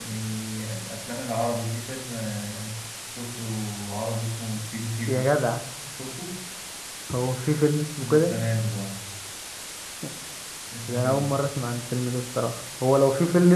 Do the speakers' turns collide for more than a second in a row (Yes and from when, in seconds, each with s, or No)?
No